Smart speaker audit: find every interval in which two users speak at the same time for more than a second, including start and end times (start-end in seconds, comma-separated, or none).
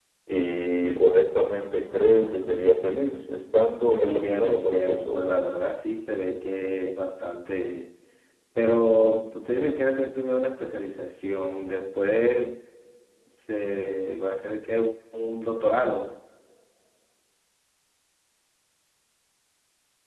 3.9-5.3